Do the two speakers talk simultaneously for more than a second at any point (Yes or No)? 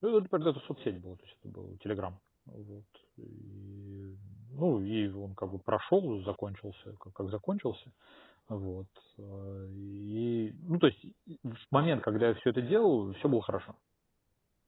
No